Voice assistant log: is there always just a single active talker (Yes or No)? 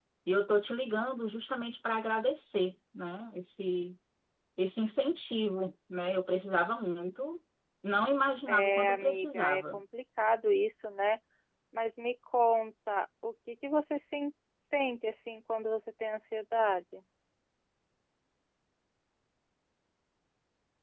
No